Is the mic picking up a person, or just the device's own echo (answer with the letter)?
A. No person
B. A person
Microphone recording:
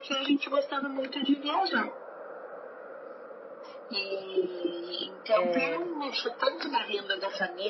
B